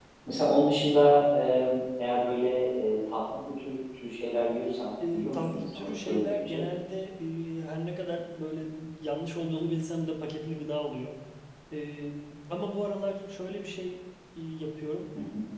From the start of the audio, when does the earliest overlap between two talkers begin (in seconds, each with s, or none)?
5.0 s